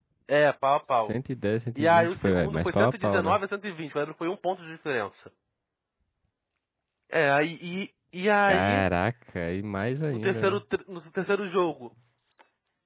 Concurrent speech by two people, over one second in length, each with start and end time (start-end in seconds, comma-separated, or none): 1.8-3.4